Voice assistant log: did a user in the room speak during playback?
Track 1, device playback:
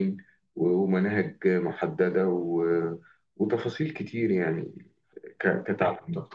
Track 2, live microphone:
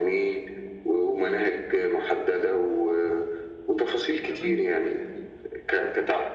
Yes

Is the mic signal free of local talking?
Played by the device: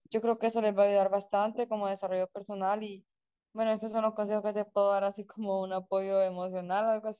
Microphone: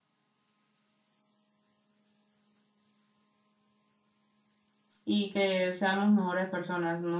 No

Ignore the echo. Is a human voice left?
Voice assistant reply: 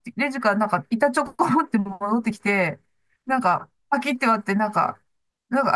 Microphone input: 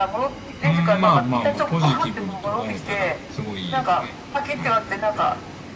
Yes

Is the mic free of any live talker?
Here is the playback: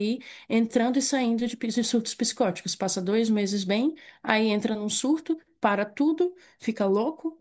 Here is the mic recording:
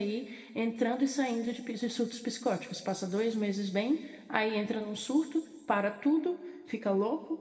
Yes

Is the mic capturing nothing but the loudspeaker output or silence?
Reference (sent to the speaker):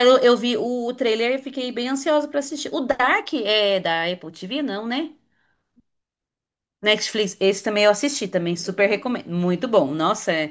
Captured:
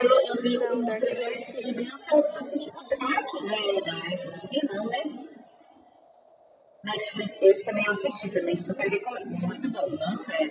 No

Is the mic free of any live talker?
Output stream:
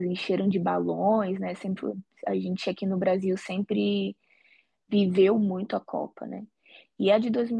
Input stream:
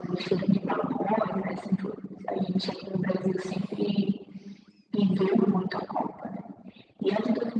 Yes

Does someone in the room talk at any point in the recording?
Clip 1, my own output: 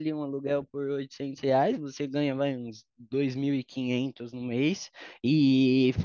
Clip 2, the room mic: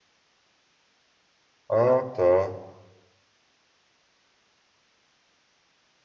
Yes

